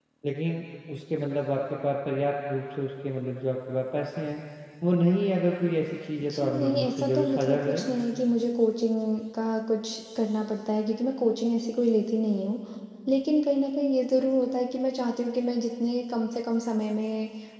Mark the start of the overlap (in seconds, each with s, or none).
6.2 s